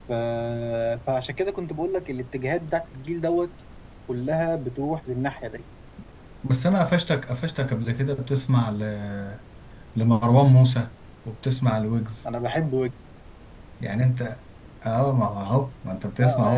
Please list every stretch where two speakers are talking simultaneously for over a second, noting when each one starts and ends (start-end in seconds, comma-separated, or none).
none